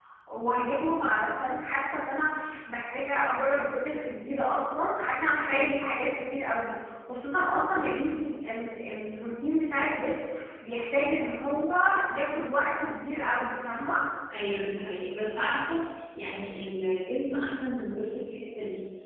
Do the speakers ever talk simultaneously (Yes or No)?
No